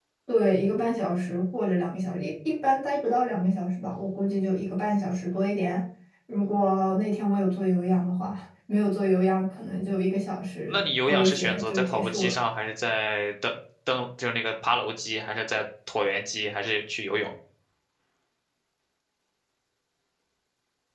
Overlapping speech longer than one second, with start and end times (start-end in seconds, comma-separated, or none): 10.7-12.3